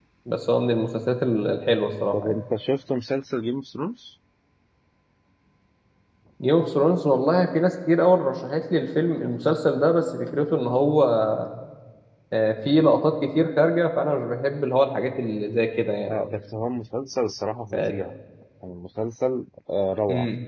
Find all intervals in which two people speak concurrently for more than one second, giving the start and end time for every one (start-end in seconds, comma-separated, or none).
none